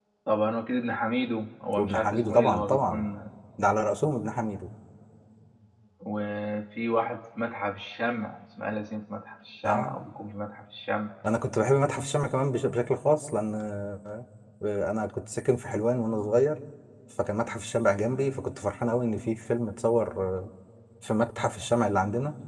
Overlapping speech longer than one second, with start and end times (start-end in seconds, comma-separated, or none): 1.8-3.1